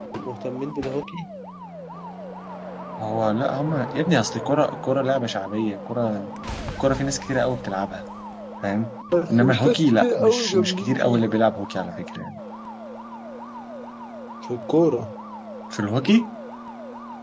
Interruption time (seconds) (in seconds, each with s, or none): 9.3 s